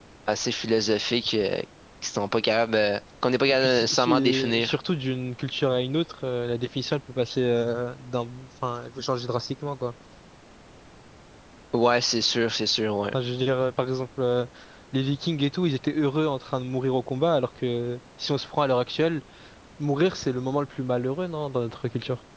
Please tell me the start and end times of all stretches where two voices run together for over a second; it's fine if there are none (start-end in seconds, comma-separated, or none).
3.5-4.8